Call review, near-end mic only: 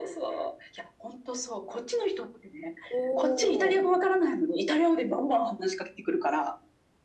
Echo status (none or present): present